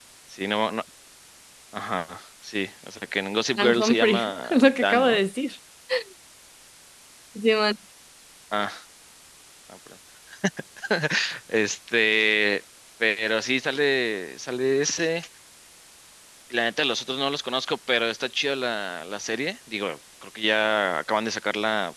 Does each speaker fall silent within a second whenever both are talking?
No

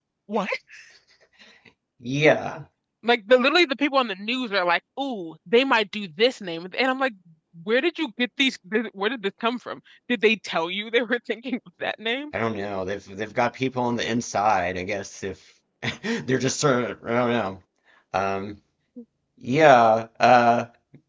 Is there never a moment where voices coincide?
Yes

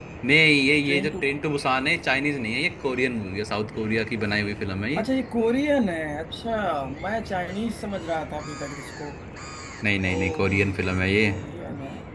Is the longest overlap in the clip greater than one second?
Yes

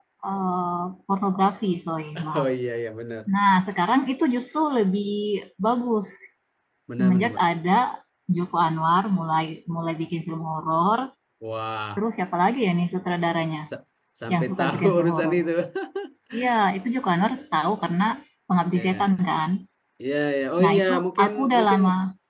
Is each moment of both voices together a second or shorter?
No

